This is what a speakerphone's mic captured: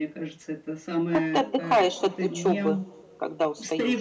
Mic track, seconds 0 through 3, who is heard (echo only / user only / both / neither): both